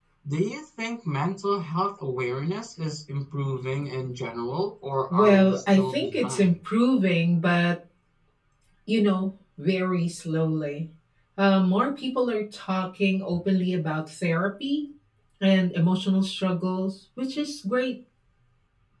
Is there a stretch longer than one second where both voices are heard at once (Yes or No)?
Yes